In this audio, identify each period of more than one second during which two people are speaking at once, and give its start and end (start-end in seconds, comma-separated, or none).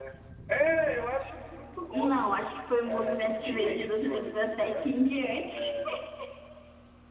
2.8-4.9